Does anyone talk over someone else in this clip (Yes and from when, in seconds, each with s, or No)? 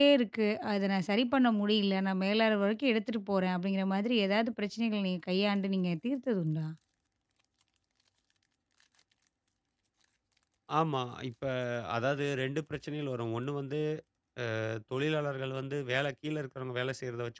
No